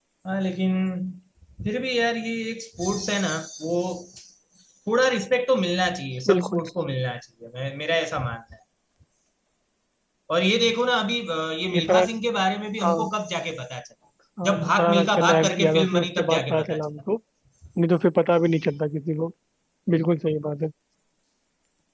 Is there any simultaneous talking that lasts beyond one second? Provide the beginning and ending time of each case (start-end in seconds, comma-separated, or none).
14.4-16.9